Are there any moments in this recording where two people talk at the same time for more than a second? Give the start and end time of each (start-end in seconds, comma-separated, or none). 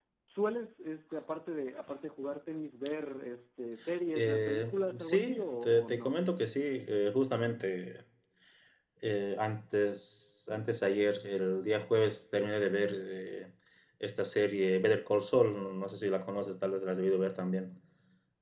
4.2-6.2